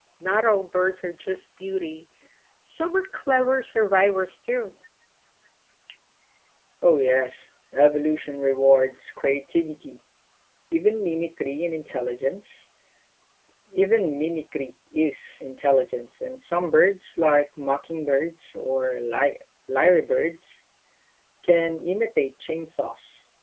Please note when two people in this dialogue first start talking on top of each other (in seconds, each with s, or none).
none